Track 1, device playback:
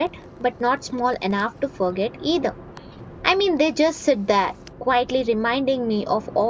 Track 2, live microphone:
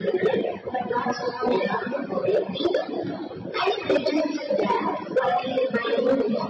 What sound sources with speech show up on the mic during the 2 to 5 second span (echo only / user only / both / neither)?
echo only